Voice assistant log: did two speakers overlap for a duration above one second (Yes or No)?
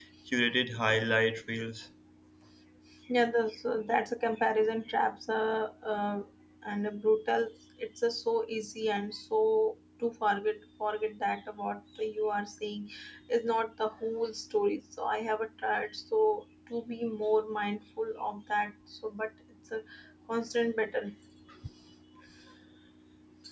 No